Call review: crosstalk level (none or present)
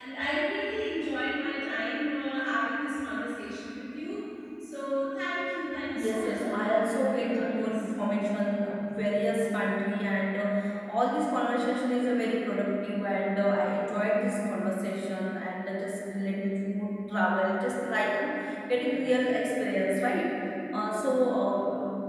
present